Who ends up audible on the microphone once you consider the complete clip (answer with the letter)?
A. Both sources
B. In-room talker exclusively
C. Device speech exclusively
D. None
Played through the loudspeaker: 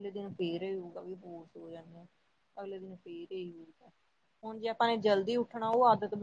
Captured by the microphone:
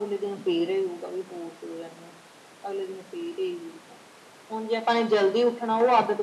C